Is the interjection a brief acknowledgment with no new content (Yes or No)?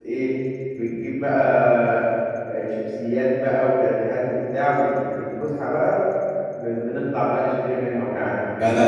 No